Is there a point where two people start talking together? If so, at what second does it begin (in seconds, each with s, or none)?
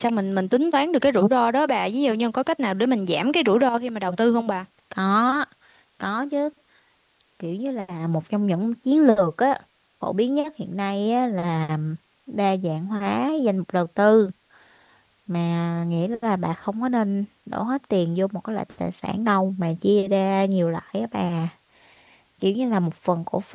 none